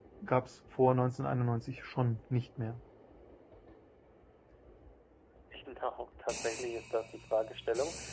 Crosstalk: none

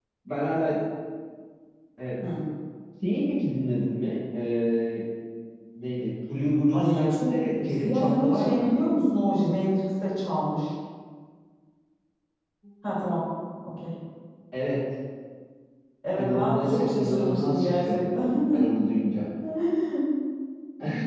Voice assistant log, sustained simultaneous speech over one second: present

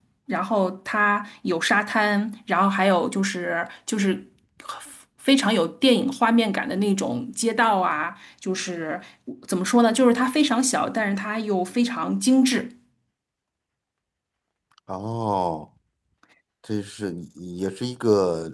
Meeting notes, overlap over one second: none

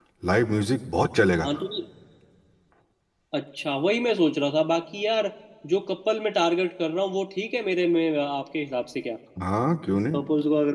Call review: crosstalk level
none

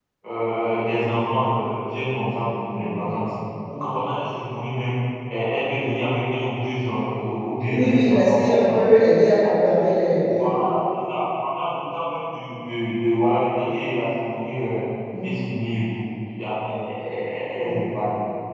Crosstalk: present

